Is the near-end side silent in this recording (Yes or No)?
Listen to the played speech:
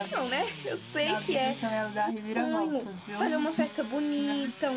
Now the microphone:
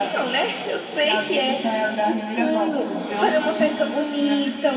Yes